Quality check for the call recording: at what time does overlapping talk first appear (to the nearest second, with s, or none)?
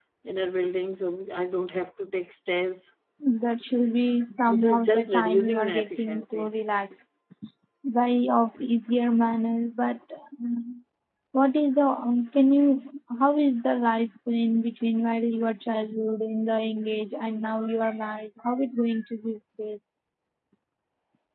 4 s